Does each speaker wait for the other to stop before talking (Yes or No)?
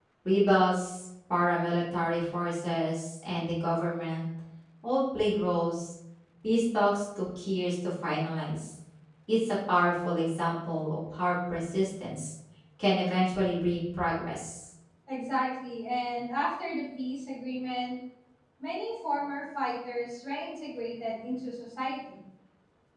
Yes